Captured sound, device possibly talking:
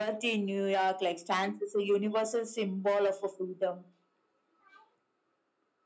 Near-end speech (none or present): none